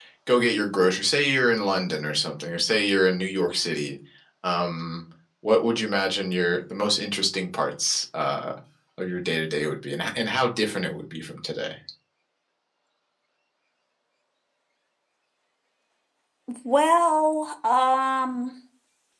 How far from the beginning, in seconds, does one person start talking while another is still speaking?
none

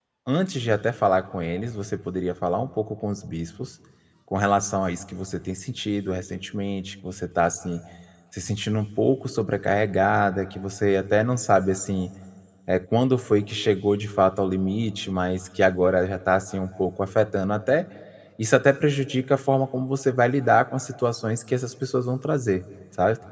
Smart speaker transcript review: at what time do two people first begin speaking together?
none

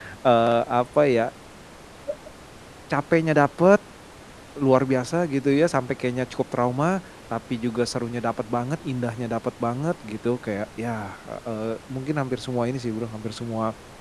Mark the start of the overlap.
none

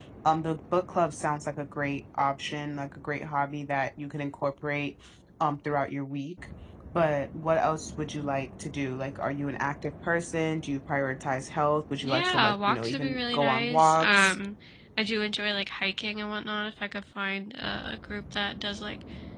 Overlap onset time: 12.0 s

